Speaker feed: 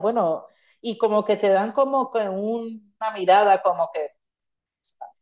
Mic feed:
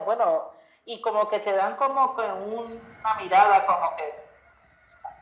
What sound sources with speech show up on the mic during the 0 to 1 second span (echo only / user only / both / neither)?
echo only